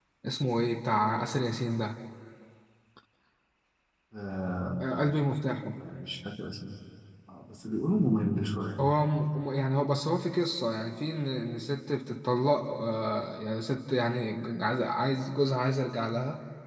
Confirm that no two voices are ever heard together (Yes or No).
Yes